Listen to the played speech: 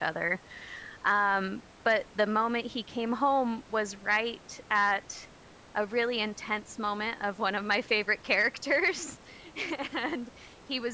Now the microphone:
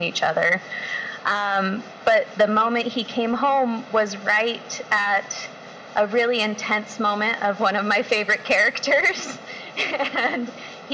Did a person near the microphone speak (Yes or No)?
No